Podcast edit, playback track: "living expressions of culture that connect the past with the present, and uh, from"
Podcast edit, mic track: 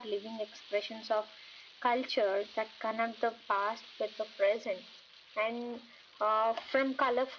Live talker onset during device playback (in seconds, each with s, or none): none